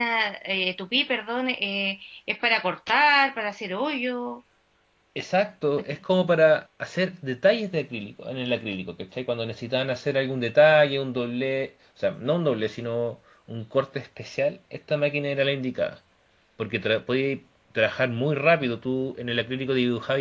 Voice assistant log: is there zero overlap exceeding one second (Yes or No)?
Yes